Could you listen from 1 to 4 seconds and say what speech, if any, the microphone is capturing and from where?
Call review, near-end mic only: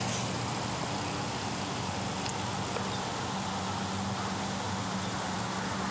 neither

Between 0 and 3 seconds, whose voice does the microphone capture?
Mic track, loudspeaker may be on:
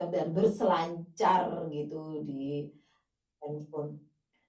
echo only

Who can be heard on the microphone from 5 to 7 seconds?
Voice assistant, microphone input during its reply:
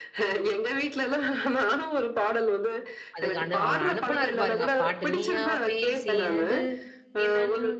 both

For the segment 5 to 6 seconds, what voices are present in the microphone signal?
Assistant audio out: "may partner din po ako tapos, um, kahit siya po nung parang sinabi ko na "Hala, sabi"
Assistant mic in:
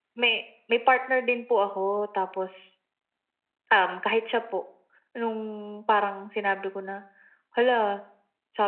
echo only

